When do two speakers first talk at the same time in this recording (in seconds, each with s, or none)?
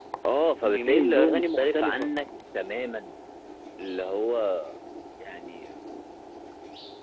0.6 s